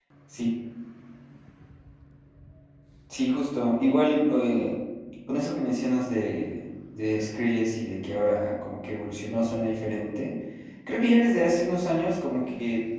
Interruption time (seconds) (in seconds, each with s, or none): none